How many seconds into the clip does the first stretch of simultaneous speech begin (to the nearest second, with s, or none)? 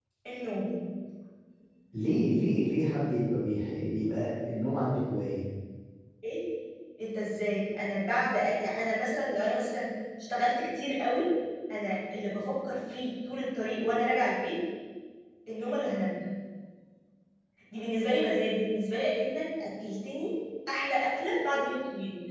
none